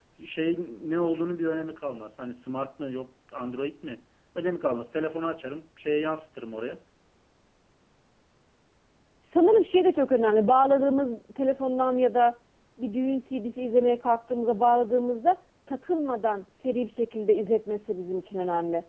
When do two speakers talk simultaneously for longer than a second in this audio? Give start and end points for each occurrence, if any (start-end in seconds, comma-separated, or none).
none